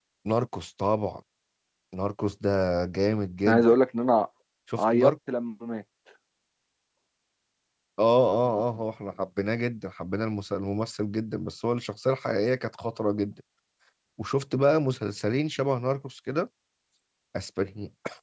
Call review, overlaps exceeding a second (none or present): none